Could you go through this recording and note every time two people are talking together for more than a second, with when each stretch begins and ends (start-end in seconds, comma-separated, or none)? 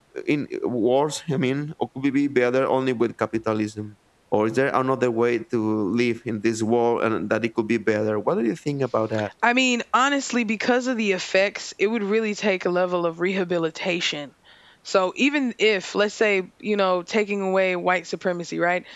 none